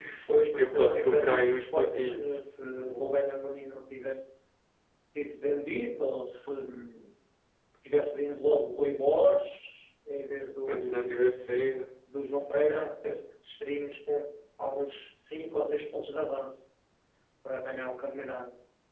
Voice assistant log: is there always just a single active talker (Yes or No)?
No